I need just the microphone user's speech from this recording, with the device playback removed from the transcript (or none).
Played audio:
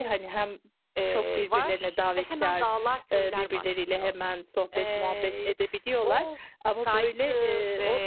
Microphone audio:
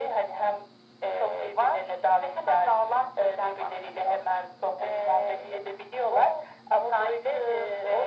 none